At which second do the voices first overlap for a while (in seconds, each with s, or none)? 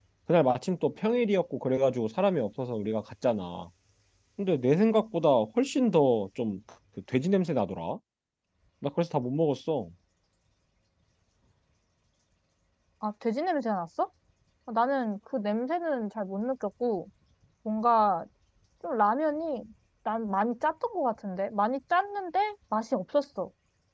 none